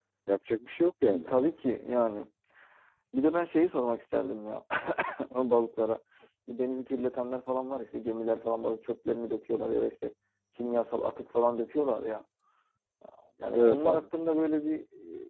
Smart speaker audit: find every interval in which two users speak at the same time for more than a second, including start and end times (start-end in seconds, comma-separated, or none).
none